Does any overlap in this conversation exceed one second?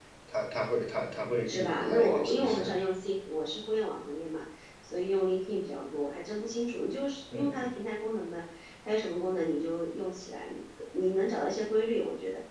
Yes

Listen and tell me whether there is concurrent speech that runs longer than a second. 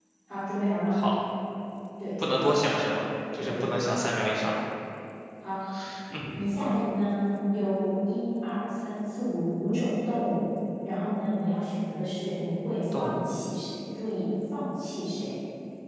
No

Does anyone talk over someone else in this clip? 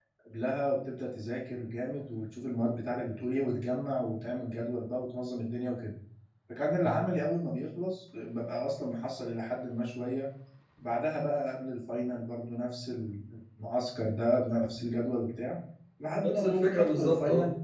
Yes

